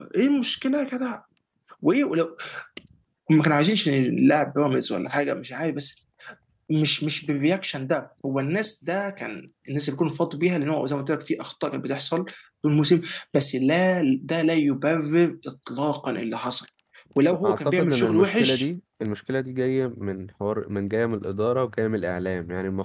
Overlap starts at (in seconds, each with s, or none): 17.4 s